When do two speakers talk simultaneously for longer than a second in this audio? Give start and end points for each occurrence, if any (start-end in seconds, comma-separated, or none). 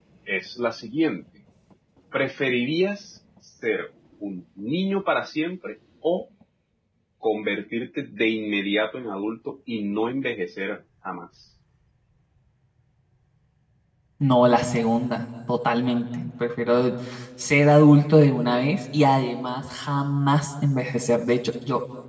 none